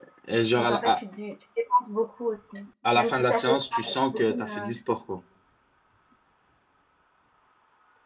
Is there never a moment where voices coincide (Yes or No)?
No